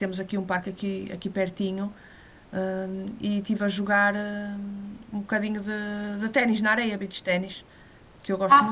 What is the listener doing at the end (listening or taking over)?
taking over